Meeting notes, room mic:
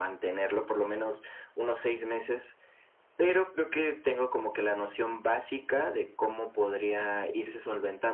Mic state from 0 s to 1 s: echo only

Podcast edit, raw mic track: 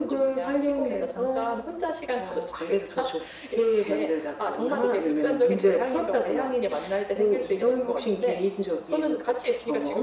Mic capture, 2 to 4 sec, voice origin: echo only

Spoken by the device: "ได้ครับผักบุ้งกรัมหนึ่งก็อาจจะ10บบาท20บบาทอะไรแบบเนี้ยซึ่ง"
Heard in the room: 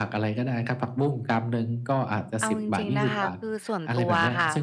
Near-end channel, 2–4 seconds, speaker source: both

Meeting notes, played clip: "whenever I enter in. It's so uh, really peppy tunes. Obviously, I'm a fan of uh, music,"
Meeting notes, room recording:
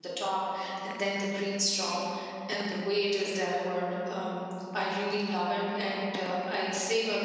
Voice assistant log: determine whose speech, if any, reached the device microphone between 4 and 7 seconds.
user only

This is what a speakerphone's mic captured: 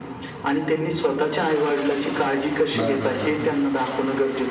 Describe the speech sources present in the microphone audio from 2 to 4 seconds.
both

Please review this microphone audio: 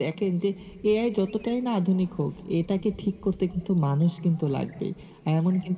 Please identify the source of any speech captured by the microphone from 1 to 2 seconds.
echo only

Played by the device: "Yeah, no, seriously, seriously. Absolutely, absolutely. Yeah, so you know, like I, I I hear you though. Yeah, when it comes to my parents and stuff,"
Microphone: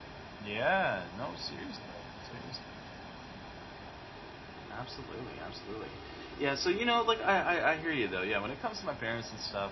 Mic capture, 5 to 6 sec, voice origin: echo only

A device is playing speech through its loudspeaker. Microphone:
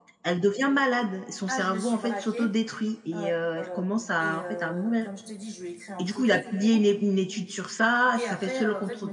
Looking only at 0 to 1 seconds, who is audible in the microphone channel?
echo only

